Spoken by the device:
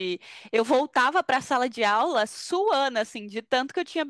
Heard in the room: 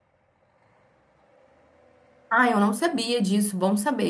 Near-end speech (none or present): present